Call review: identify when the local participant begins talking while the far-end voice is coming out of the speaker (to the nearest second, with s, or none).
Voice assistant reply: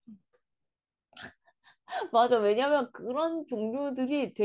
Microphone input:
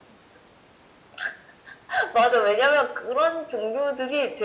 none